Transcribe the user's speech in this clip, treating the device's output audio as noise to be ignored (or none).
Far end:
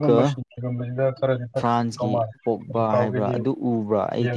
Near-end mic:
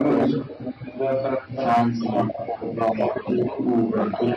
none